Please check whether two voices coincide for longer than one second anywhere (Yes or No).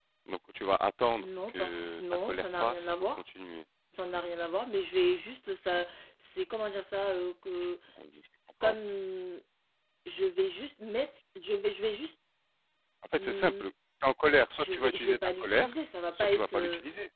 Yes